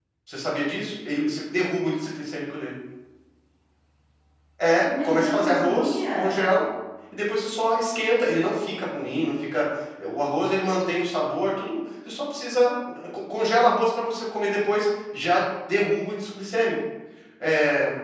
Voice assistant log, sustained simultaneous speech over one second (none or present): present